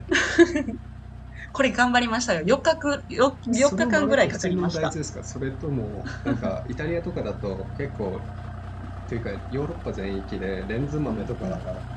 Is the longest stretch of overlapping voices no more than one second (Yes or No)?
No